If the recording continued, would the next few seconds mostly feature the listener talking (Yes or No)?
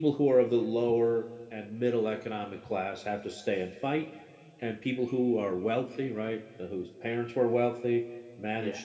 No